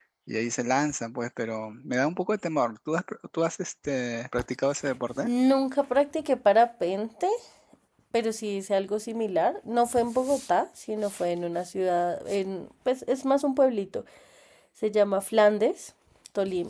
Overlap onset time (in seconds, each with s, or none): none